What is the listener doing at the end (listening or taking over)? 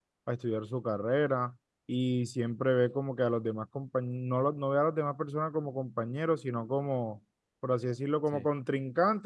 listening